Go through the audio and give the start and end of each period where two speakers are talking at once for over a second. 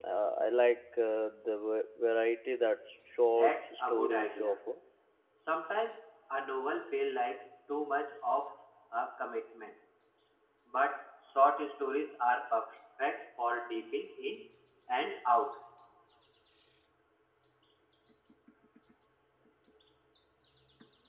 3.4-4.6

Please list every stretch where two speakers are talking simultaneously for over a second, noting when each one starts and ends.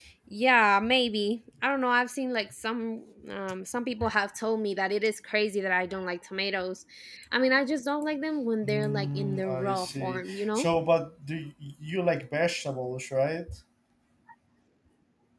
8.6-10.7

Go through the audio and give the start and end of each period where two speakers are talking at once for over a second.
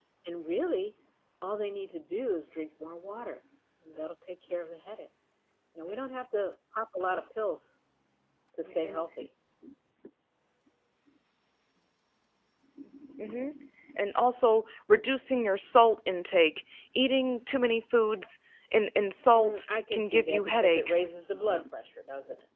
19.4-21.1

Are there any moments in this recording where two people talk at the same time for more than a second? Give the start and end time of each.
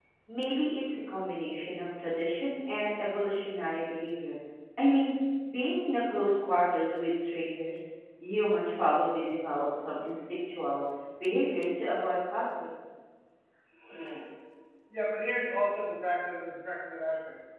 none

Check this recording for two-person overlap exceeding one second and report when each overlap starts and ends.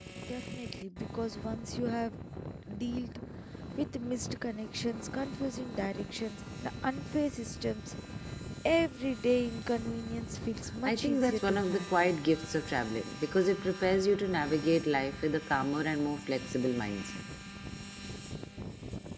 10.8-12.1

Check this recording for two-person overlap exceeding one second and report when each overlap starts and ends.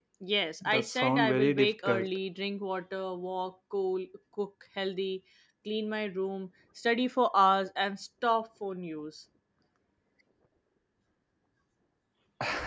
0.6-2.1

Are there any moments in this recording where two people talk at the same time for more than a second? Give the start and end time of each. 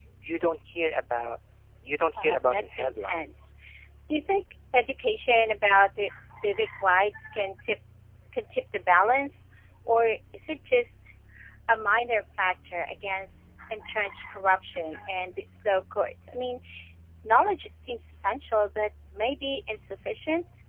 2.1-3.5

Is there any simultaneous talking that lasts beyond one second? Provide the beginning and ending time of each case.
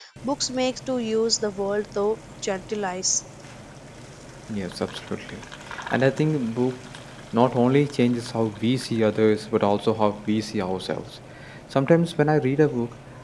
none

